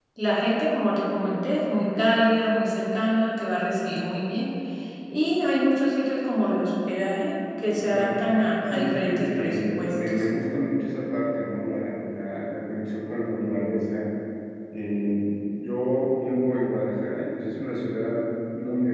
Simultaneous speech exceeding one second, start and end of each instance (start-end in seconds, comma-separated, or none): 8.7-10.2